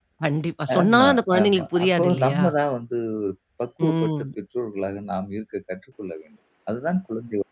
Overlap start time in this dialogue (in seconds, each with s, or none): 0.8 s